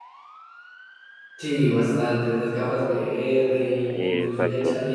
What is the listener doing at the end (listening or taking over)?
listening